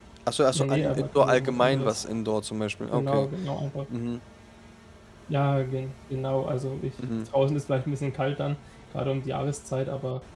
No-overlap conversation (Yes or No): No